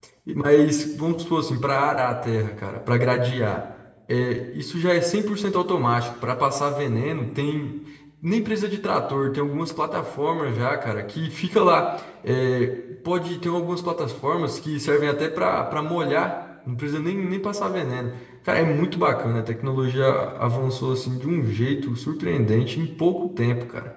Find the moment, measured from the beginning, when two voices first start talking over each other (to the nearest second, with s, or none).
none